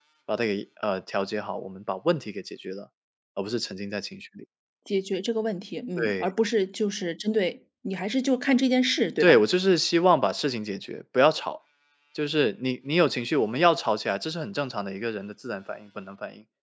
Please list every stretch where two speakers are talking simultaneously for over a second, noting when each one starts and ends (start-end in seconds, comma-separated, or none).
none